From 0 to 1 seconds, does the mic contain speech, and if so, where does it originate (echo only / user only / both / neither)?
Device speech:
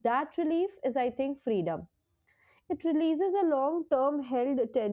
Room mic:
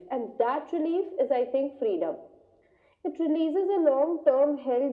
echo only